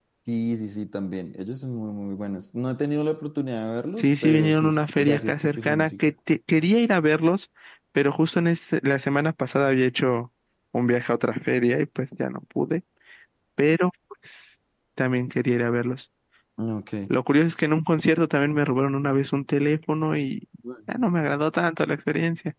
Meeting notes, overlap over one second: present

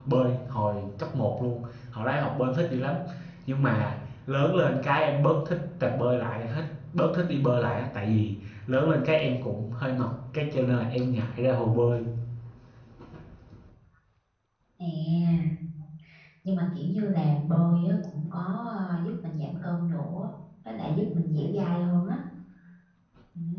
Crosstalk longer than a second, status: none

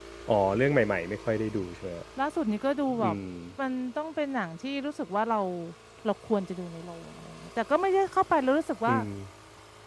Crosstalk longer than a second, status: none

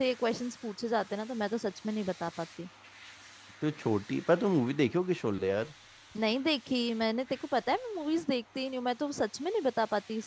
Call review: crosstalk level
none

